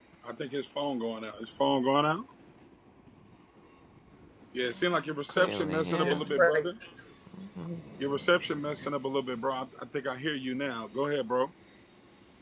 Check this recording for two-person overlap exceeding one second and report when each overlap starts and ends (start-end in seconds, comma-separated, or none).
5.3-6.7